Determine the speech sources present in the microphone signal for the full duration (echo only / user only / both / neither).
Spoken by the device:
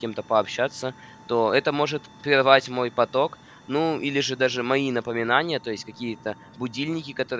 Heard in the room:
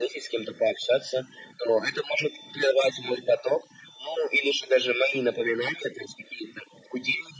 echo only